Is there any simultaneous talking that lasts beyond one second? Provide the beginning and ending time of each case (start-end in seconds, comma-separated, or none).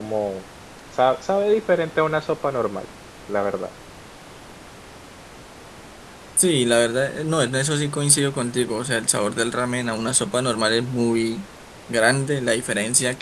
none